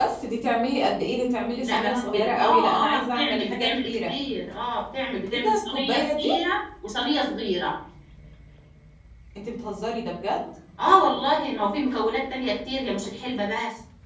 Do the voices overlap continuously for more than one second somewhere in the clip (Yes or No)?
Yes